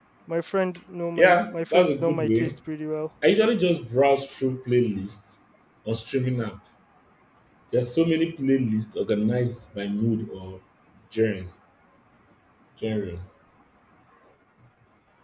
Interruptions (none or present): present